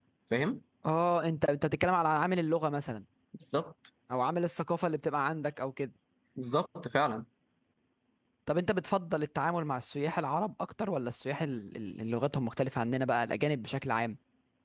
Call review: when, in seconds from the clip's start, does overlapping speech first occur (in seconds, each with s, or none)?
none